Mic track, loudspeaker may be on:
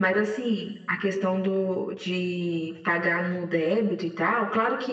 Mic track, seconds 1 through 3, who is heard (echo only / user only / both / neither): echo only